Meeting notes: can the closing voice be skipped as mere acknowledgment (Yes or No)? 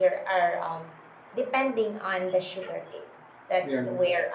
Yes